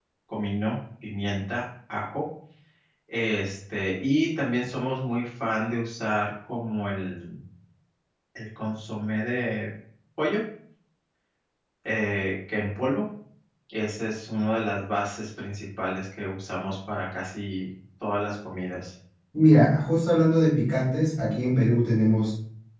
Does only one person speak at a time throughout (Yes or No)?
Yes